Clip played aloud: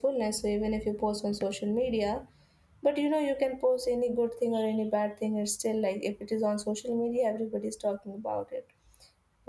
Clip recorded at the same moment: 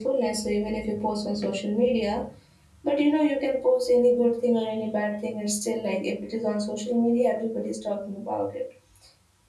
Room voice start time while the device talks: none

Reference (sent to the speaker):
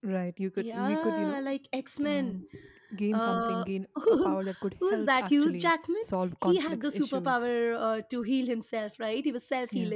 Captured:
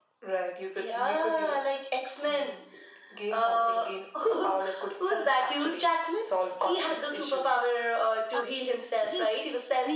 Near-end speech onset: 8.3 s

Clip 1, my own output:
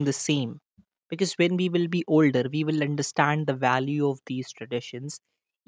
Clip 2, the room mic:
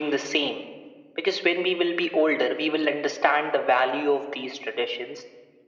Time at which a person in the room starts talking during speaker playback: none

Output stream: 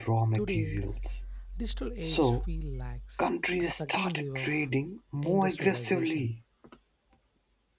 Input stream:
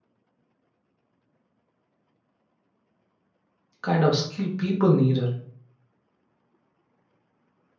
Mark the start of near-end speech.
3.8 s

